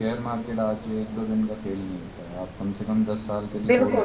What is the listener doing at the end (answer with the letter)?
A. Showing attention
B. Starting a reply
B